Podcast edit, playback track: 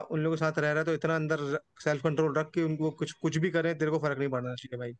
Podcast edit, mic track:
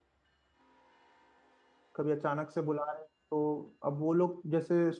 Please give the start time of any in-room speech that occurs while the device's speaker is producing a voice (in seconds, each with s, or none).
2.0 s